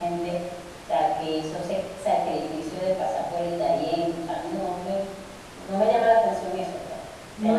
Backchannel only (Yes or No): Yes